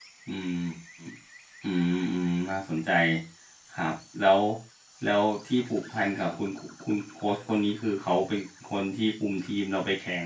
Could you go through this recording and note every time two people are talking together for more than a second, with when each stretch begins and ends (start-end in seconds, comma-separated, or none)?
none